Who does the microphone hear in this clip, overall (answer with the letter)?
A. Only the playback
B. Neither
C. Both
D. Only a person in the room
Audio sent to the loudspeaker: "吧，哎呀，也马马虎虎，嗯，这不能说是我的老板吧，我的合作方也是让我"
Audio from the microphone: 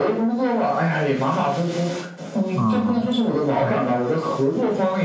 C